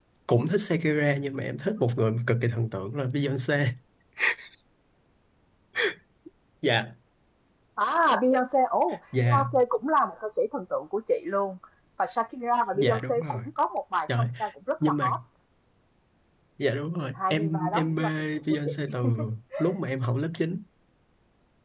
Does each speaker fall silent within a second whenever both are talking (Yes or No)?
No